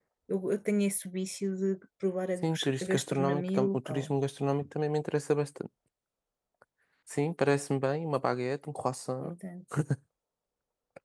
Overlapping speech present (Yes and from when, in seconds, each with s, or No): Yes, from 2.4 s